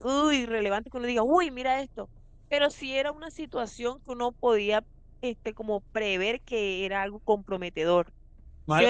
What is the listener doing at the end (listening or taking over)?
taking over